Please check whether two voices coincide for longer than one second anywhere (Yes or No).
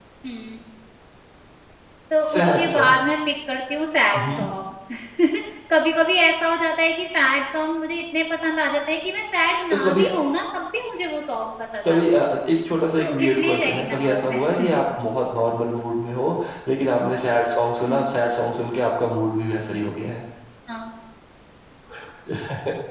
Yes